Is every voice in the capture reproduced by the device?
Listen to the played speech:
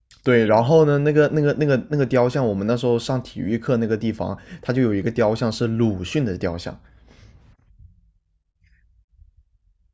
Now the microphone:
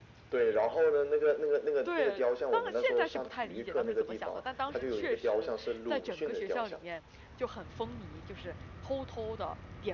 No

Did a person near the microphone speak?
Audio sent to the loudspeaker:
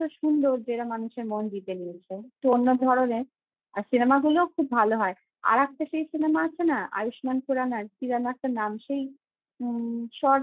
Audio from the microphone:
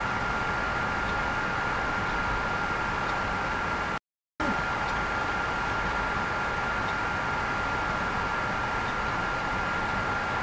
No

